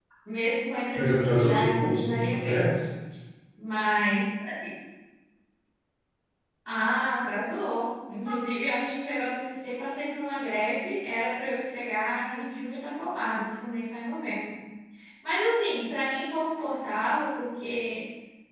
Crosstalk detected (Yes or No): Yes